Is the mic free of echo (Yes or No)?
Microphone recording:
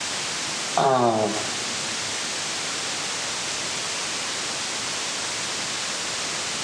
Yes